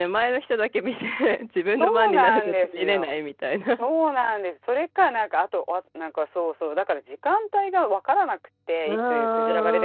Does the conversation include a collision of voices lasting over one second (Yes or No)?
Yes